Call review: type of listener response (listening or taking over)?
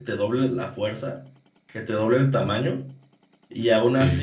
listening